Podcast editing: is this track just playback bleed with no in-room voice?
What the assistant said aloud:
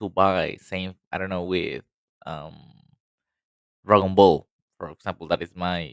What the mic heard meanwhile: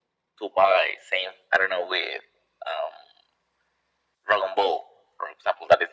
Yes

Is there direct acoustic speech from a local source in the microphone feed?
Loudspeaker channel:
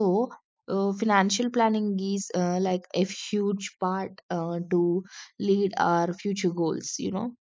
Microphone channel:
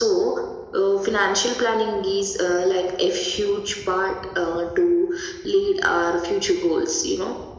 No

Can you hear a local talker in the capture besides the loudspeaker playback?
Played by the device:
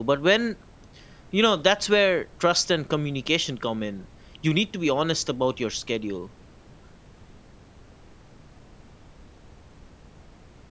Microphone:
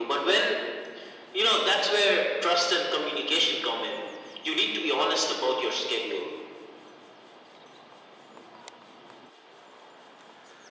No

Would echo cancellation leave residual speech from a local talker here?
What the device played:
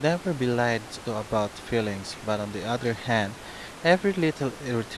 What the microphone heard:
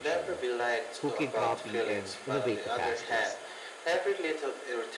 Yes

